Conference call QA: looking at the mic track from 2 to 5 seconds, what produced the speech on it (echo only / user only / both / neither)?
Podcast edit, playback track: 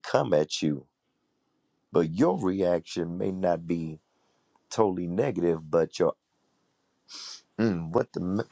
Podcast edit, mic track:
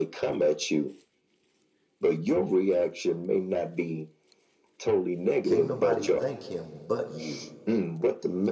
echo only